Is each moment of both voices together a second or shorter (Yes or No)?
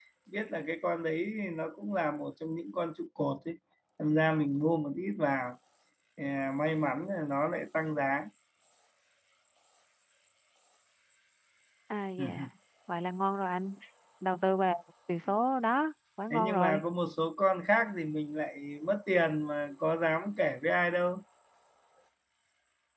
Yes